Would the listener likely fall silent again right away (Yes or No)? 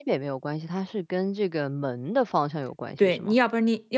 No